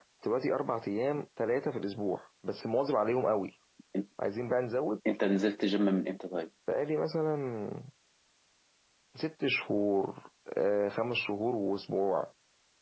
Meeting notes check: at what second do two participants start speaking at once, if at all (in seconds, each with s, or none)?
none